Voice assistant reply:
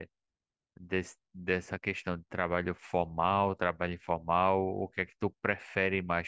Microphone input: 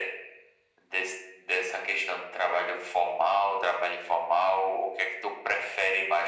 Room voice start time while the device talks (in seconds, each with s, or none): none